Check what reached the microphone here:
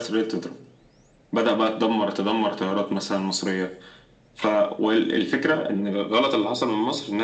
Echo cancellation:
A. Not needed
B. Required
B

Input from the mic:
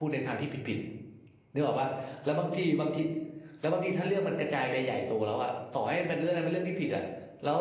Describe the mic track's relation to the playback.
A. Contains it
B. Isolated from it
B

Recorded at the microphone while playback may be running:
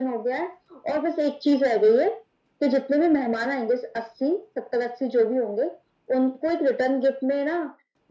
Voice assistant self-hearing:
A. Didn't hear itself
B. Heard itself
B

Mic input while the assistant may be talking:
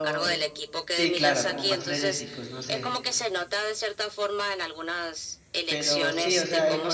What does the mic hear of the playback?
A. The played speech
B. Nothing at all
A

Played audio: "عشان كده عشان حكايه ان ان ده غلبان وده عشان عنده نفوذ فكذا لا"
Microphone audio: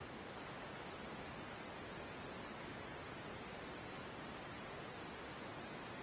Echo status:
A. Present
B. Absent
B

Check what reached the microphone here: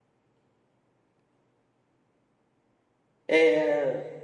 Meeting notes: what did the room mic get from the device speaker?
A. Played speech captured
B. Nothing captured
B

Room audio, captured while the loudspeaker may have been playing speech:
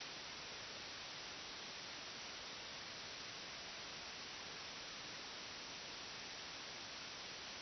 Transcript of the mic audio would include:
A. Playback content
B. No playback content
B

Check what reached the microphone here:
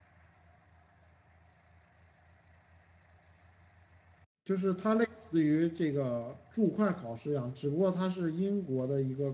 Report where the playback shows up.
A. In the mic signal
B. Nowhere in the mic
B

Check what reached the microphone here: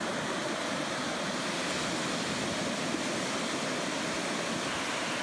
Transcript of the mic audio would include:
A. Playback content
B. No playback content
B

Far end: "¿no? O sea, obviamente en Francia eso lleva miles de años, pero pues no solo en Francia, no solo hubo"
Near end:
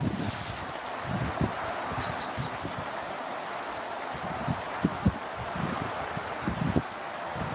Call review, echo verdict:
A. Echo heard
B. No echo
B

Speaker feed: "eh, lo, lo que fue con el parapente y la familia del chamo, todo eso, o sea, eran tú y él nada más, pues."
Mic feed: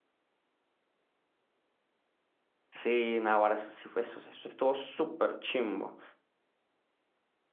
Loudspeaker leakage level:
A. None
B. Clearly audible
A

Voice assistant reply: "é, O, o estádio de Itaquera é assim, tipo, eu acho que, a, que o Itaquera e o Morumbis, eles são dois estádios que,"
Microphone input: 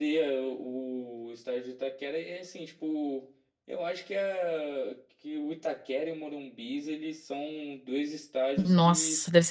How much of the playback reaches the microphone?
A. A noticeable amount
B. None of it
A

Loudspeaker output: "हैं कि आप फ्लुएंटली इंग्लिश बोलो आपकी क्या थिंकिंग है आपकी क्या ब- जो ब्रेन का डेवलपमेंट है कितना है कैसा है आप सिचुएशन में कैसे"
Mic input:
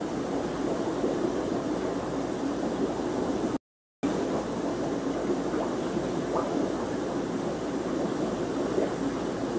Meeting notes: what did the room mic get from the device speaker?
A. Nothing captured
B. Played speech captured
A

